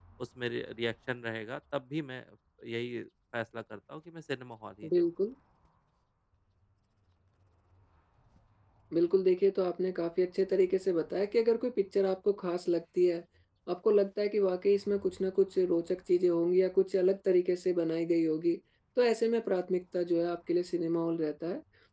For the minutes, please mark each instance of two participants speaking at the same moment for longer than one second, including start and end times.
none

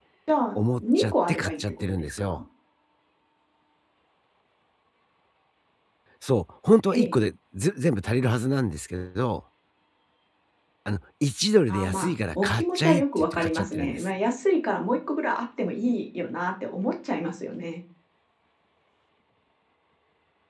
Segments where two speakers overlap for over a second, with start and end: 0.6-2.4, 11.7-14.1

